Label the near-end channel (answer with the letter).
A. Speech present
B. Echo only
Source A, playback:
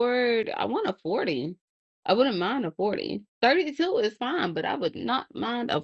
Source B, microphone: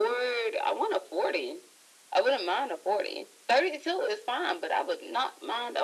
B